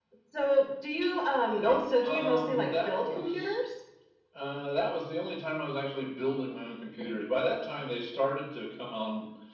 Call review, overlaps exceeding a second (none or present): present